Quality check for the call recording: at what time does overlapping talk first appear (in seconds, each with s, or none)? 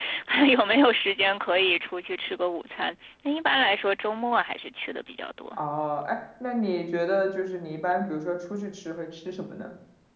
none